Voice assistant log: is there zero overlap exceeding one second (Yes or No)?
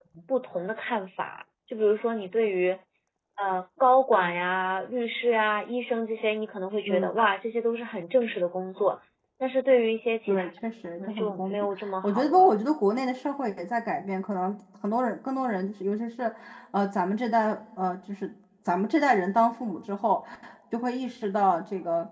No